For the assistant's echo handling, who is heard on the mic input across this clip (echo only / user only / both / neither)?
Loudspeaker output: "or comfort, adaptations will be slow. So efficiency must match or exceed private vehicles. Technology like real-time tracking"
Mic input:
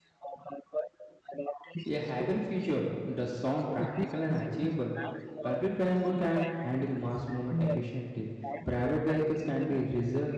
both